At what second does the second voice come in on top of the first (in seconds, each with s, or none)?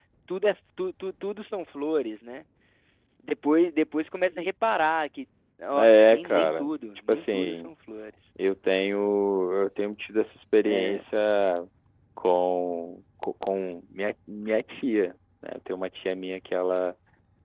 5.8 s